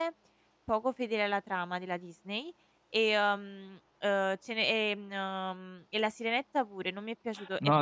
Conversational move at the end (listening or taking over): taking over